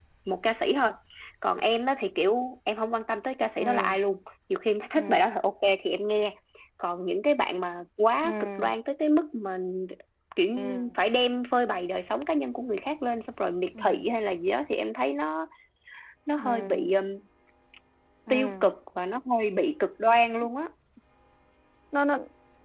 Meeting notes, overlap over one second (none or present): none